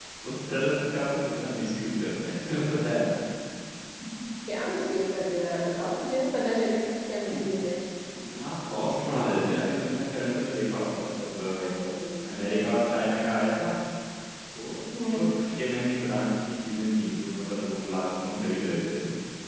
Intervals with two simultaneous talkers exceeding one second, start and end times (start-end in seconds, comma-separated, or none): none